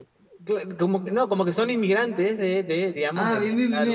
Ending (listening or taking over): taking over